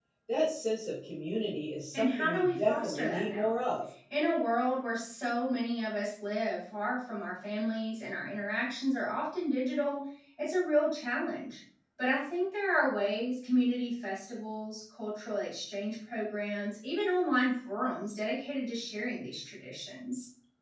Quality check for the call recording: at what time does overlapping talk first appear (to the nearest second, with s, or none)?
2 s